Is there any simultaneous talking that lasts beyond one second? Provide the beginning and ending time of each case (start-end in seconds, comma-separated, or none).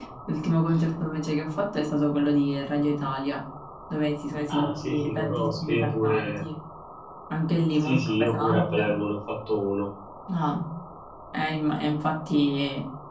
4.5-6.4, 7.7-8.9